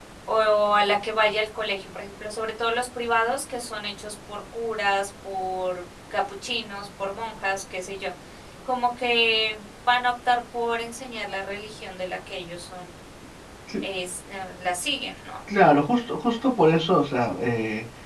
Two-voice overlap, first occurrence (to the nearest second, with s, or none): none